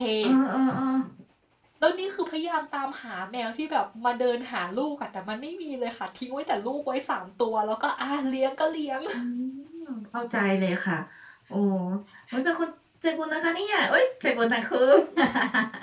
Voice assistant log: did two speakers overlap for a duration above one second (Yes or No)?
No